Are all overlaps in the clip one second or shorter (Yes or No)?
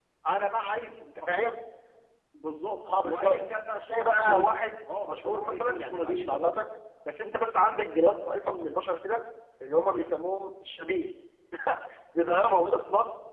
No